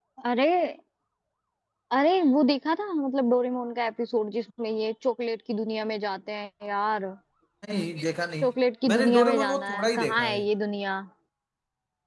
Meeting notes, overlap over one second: present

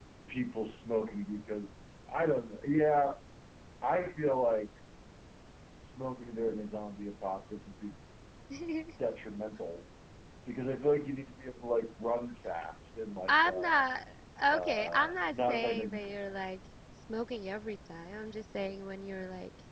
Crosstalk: present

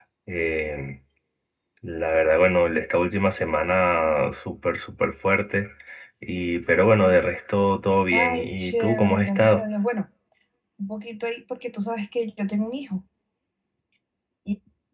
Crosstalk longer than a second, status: present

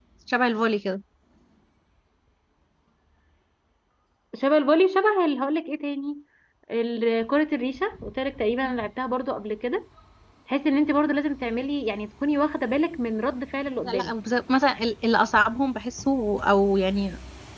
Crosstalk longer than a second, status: none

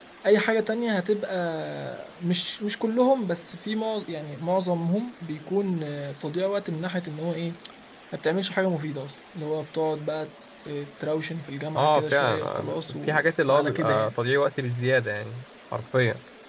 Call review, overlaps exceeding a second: present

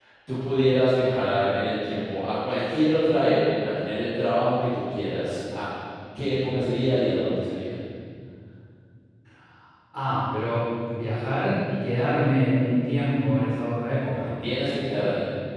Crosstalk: none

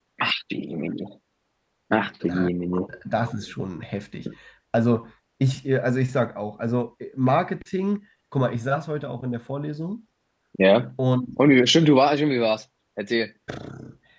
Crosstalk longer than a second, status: none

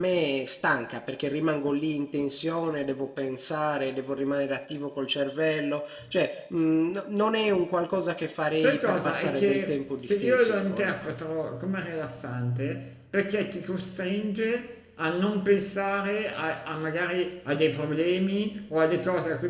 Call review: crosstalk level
present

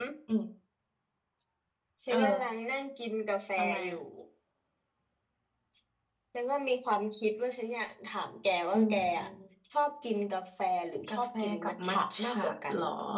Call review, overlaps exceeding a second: present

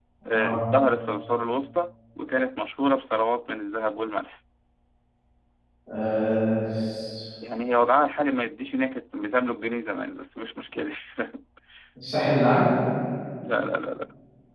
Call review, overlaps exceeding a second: none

